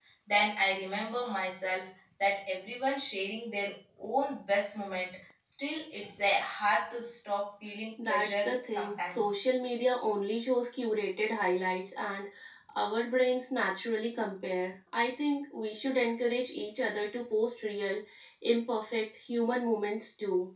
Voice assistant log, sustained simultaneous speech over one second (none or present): present